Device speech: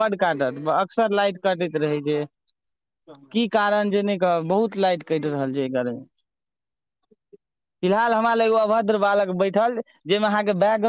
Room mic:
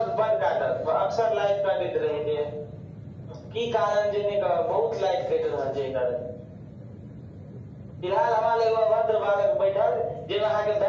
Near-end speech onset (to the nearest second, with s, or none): none